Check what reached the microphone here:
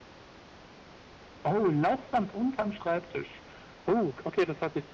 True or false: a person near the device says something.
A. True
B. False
B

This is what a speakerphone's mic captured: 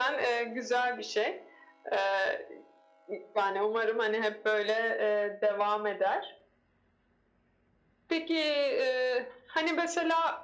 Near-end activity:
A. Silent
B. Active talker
A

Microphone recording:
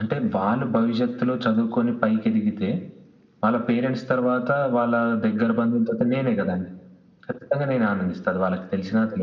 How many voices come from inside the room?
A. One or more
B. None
B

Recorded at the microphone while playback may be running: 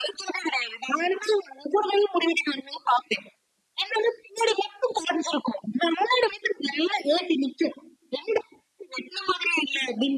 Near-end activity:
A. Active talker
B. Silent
B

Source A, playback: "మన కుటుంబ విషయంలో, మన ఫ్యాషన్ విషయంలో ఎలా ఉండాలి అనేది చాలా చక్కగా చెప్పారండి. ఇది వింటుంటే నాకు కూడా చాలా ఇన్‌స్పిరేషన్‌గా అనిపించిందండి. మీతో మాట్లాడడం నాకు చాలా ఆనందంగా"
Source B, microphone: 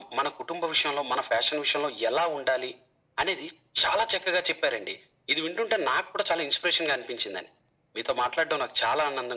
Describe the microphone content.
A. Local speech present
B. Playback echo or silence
B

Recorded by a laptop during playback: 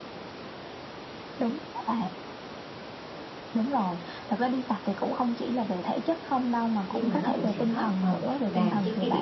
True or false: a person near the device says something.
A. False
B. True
B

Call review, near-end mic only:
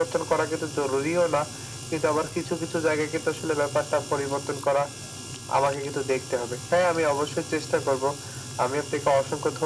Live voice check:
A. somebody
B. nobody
B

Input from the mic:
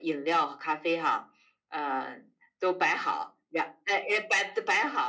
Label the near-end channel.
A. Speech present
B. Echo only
B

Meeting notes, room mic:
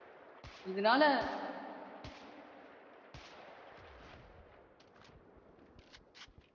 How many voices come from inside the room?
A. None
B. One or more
B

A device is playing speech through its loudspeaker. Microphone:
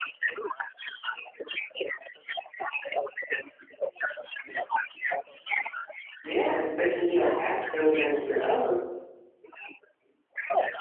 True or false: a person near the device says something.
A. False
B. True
B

